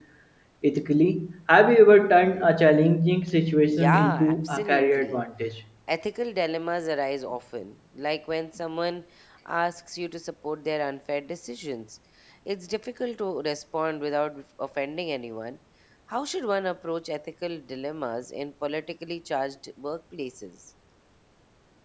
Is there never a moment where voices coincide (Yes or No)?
No